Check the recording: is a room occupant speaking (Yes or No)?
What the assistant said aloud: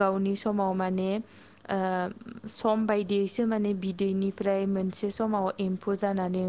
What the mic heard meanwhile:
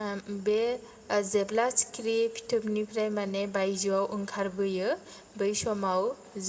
Yes